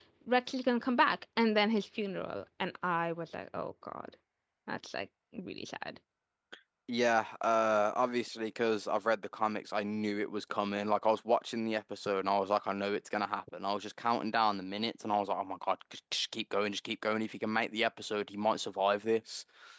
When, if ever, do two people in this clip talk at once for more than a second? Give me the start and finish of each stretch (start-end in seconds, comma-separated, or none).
none